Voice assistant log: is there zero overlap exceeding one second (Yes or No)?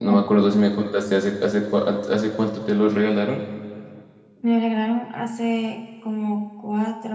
Yes